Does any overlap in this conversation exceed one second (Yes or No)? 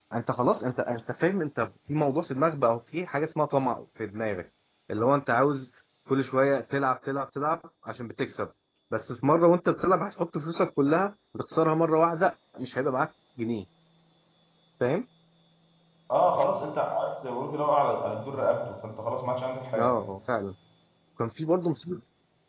No